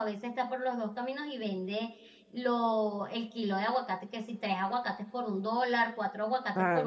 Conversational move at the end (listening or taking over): taking over